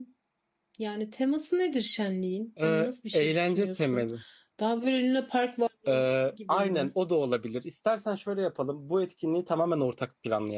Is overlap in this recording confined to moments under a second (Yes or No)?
No